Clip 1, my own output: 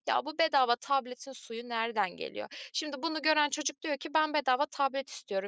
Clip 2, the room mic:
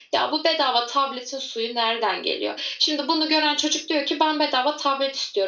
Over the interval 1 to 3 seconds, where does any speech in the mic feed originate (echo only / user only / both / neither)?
echo only